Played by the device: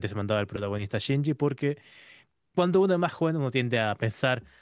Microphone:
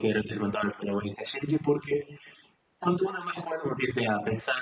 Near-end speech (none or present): none